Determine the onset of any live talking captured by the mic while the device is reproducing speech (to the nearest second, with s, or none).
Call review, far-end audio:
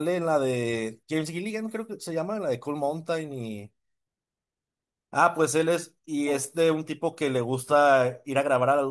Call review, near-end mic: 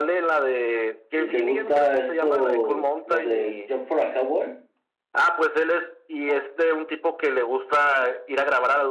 1 s